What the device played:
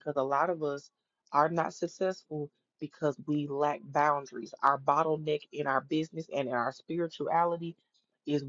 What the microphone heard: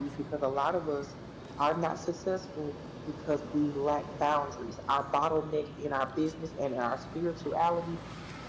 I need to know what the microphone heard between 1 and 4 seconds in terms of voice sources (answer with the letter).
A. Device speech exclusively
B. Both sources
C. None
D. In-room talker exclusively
A